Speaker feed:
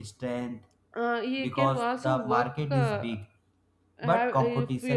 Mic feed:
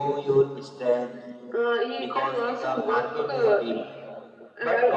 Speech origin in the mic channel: echo only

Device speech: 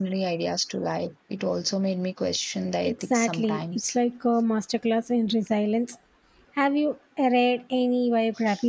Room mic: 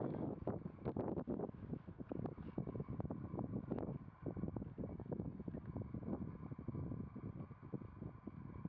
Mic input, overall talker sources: neither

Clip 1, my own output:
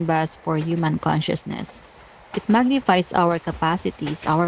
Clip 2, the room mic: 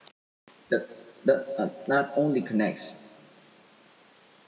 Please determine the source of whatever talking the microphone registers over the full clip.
user only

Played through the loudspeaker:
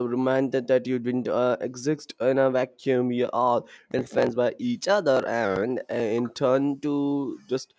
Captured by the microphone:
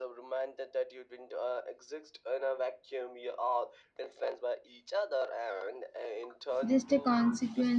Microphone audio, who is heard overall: both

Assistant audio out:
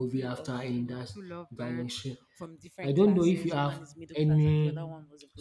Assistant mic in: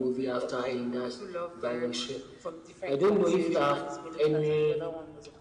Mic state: echo only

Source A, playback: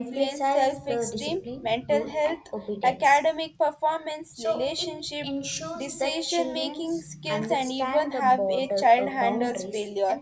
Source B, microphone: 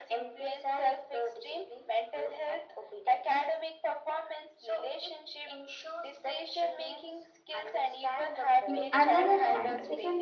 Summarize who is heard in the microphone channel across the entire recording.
both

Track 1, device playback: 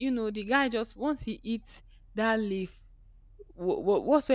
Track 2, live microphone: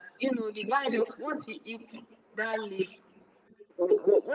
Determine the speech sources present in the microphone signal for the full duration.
echo only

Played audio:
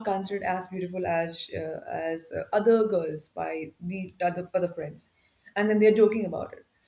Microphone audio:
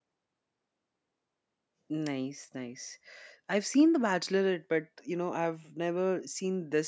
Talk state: user only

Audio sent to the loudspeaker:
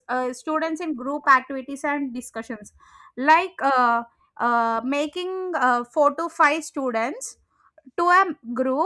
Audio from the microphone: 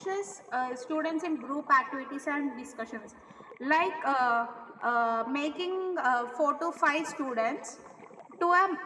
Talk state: echo only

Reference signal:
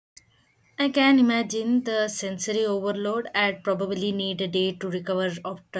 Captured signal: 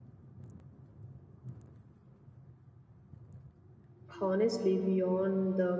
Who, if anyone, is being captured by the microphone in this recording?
user only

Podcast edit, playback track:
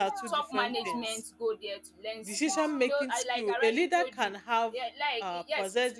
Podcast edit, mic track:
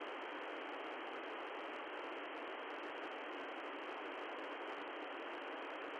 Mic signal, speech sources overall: neither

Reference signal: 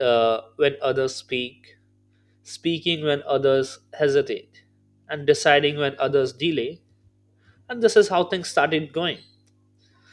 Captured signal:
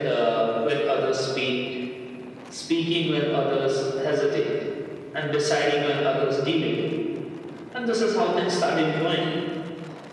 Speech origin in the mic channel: echo only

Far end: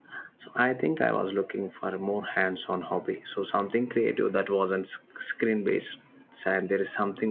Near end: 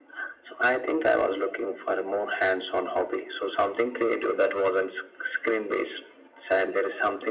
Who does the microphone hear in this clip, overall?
echo only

